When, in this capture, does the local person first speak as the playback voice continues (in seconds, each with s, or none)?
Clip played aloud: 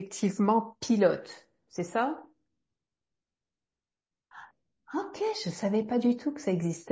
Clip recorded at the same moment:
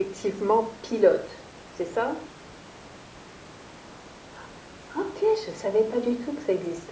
none